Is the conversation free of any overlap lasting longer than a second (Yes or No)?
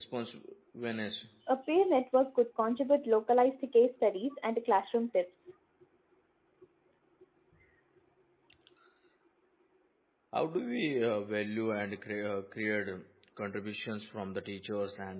Yes